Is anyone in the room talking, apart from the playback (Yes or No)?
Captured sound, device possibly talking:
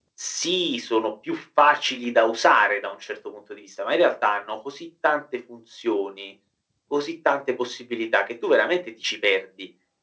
No